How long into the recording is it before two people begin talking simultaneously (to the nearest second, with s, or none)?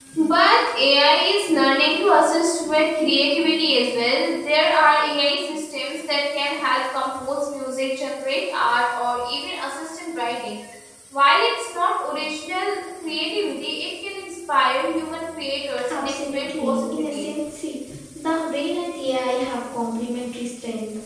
16 s